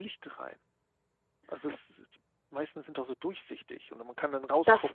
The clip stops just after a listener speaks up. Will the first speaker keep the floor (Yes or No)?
No